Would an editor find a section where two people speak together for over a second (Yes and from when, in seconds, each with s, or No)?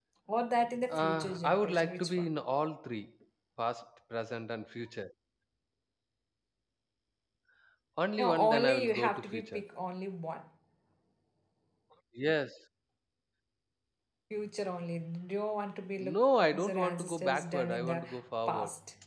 Yes, from 0.9 s